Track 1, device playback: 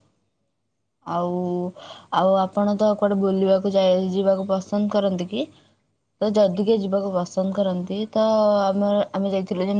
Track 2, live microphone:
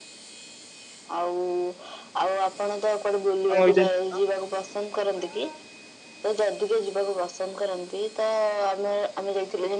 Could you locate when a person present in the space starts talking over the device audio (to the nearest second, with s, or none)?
3 s